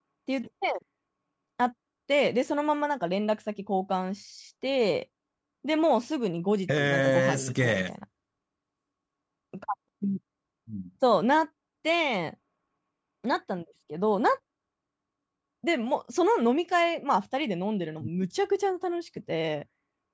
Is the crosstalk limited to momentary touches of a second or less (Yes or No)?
No